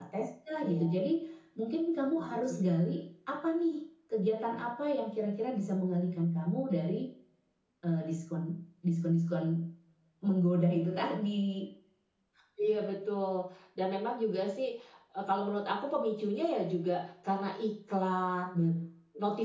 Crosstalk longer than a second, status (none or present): none